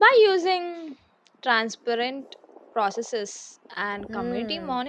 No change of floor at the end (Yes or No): No